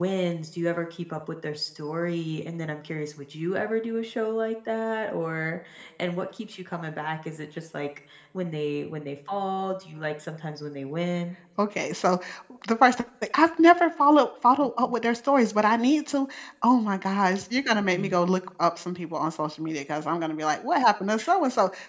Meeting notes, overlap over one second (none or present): none